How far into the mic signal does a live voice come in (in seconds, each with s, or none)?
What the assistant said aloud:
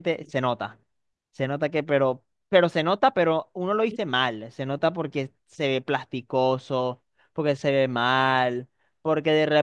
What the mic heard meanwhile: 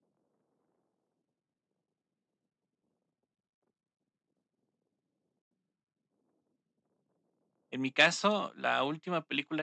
7.7 s